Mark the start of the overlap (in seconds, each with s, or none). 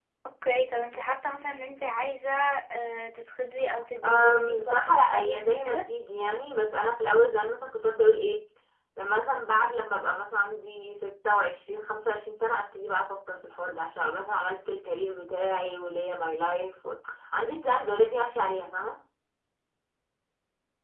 4.0 s